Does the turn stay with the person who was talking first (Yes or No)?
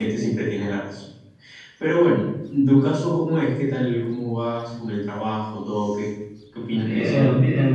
No